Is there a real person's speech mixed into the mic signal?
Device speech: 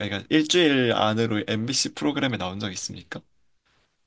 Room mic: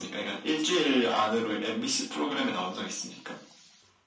No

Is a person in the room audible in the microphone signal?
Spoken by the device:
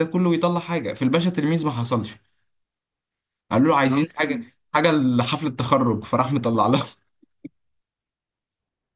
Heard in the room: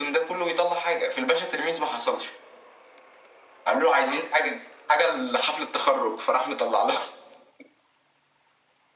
No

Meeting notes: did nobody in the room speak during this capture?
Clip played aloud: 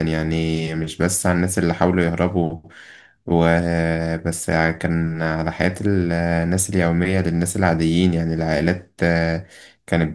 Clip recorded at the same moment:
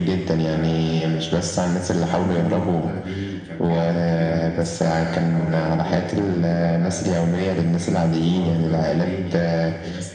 No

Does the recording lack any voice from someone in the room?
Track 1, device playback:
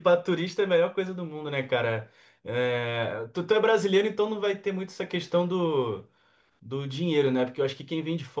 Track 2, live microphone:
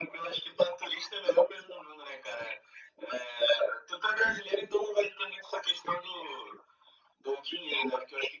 Yes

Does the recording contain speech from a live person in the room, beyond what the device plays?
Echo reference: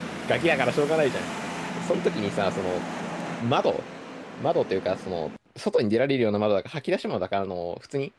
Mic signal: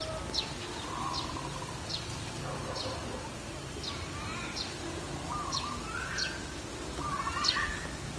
No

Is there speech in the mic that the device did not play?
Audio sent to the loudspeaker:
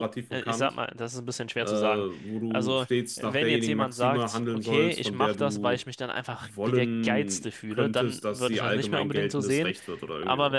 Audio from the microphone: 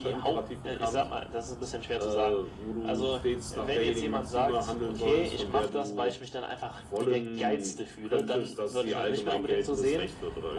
No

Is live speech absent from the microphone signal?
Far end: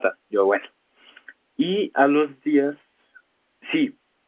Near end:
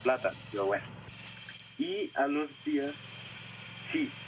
Yes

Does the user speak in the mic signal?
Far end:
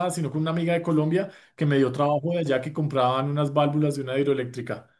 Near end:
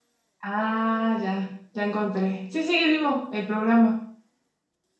Yes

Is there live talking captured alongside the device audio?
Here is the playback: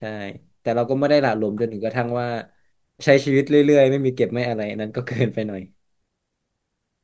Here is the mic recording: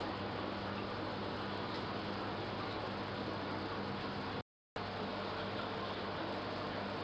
No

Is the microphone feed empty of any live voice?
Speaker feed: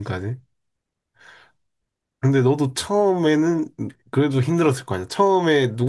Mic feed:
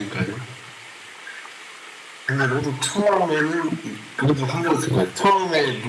Yes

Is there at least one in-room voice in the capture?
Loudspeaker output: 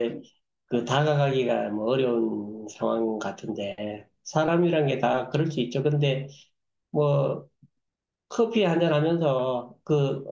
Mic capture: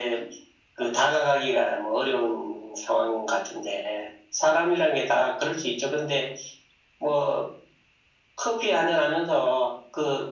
No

